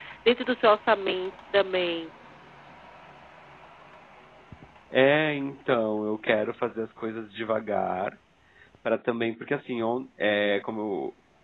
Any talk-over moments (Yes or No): No